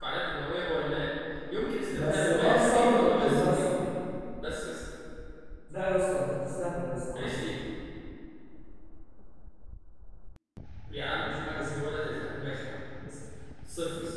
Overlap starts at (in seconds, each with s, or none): 1.9 s